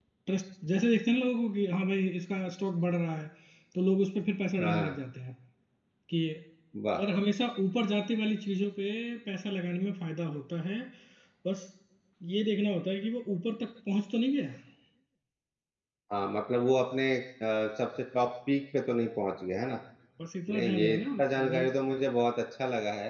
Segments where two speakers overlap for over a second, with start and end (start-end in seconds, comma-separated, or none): 20.5-21.7